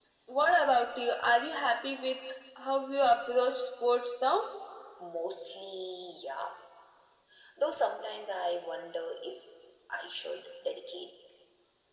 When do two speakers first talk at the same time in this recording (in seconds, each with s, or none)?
none